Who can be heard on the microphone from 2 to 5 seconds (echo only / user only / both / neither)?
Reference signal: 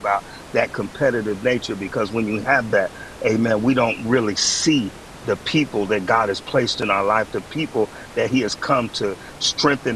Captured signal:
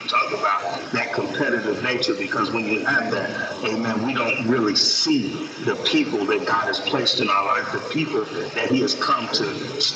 echo only